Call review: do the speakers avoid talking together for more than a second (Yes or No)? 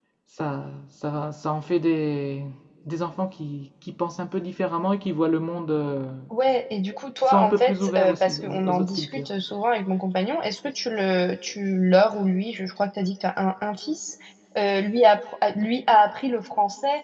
No